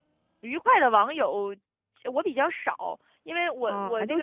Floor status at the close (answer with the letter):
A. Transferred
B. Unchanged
A